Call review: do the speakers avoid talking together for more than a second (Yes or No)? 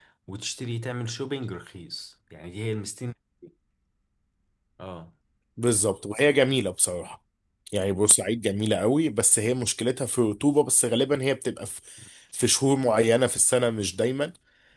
Yes